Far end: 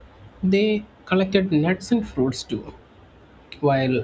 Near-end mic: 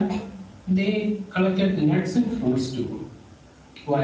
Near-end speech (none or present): none